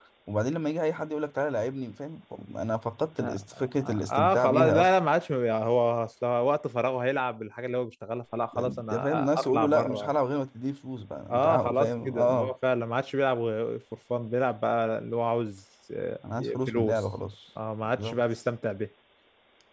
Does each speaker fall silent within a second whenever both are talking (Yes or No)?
No